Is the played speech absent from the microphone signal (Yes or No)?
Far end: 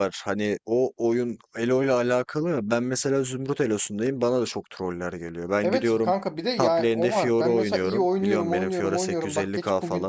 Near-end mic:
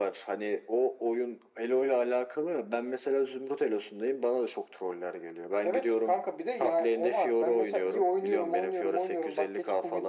No